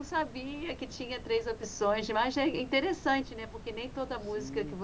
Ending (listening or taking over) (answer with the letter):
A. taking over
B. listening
B